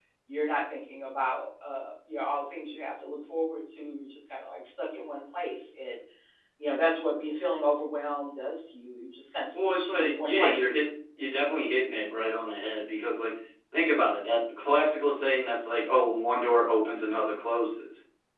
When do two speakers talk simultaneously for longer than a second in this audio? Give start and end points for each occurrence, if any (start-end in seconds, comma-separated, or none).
9.5-10.8